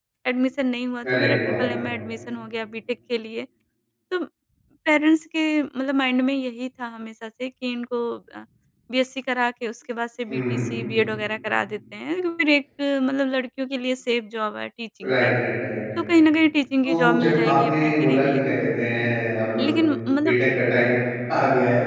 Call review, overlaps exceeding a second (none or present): present